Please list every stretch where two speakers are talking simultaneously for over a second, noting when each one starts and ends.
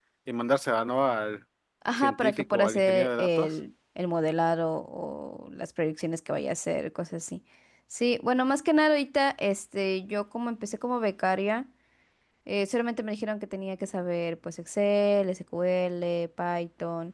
2.0-3.5

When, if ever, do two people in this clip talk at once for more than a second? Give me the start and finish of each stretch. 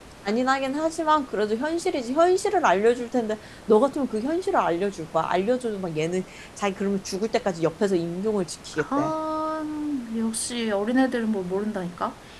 none

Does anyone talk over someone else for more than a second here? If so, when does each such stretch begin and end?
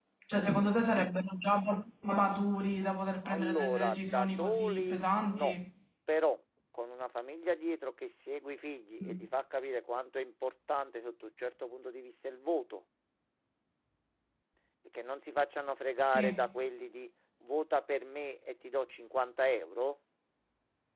3.2-5.6

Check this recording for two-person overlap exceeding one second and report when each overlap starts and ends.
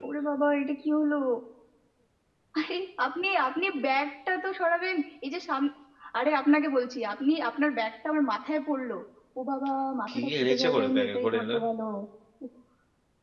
10.1-11.6

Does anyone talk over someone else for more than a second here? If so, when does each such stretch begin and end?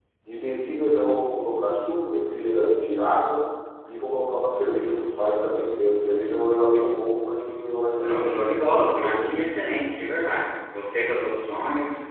8.0-9.3

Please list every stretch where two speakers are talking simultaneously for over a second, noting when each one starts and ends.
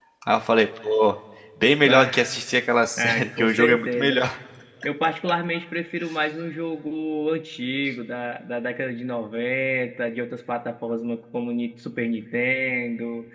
3.0-4.2

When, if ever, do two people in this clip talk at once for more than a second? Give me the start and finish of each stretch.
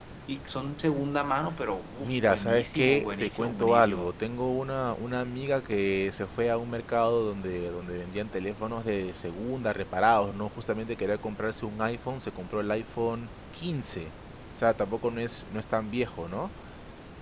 2.0-4.1

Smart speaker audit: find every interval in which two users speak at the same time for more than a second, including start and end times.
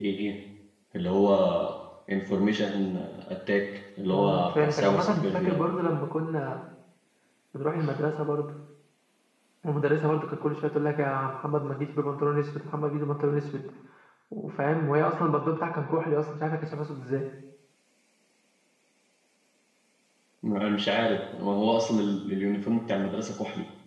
4.1-5.6

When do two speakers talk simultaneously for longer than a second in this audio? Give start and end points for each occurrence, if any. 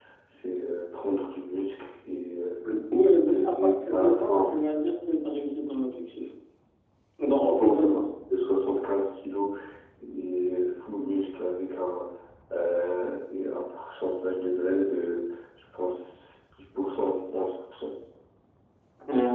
3.3-4.5

